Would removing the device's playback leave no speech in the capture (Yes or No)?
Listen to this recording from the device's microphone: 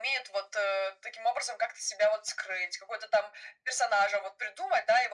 Yes